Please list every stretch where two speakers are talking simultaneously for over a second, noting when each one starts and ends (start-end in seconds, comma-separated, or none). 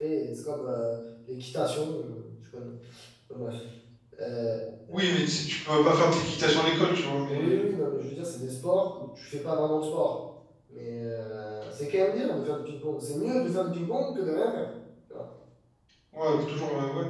none